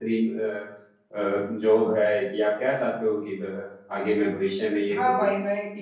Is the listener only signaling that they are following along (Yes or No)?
No